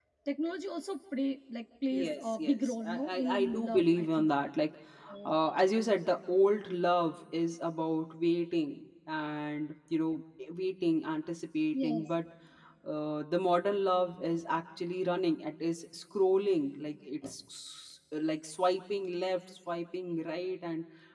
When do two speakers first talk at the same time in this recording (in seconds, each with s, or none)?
1.9 s